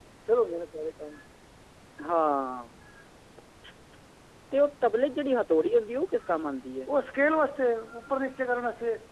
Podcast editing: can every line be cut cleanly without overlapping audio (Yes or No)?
Yes